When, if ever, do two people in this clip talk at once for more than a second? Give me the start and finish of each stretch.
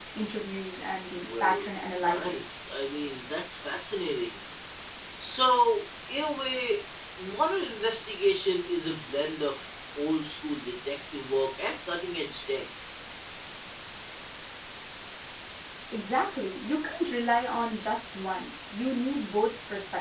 1.2-2.5

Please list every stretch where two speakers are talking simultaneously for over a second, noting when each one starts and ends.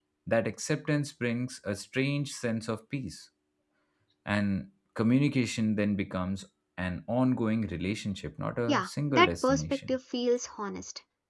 8.7-9.9

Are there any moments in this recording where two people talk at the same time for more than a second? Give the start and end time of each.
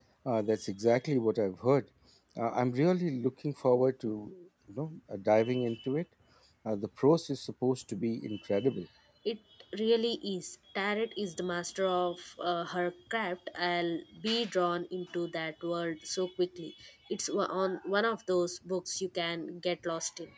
none

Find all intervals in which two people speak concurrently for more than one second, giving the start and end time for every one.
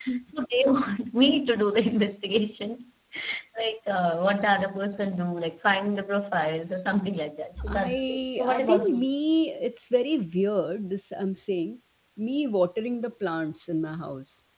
7.6-9.1

